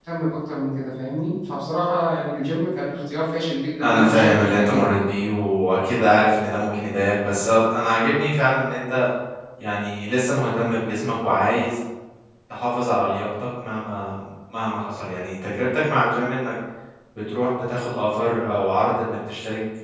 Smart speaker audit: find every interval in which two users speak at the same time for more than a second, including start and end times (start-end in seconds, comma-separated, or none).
3.8-5.1